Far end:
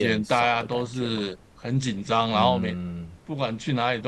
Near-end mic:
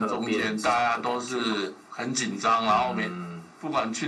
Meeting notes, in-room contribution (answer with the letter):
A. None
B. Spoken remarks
A